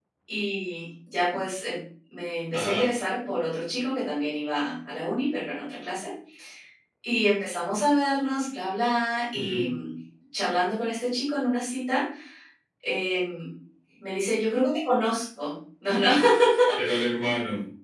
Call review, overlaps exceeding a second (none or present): none